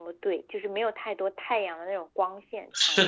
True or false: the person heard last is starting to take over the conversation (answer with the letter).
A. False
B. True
B